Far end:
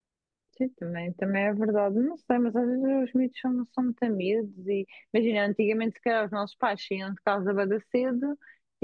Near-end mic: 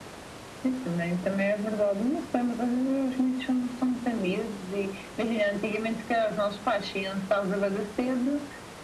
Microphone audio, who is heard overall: echo only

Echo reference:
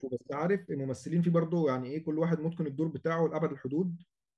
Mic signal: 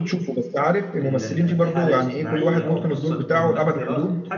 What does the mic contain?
both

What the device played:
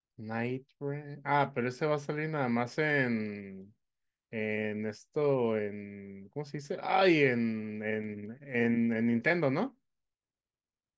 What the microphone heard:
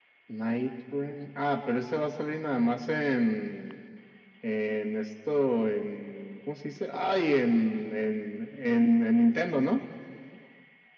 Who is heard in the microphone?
echo only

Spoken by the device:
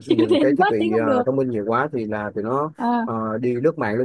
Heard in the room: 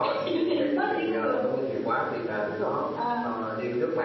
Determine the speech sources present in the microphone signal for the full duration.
both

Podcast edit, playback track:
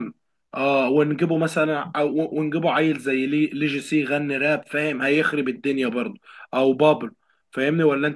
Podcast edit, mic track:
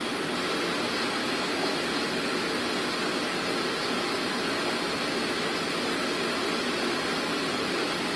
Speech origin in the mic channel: neither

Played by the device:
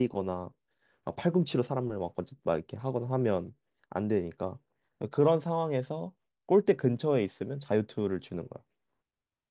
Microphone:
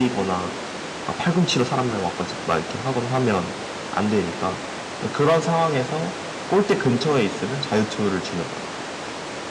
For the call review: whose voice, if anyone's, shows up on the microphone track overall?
echo only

